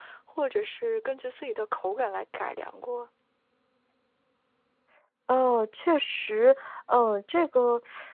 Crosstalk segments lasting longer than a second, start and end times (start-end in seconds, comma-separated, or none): none